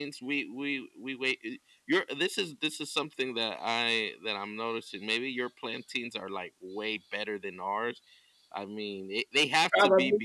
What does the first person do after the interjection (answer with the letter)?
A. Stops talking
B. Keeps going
B